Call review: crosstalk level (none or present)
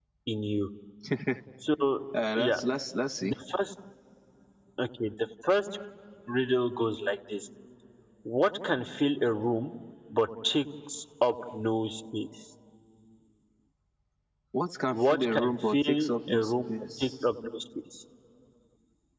present